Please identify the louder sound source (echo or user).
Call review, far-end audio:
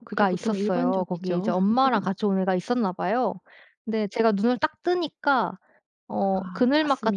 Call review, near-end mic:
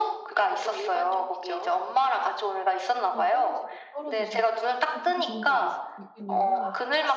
echo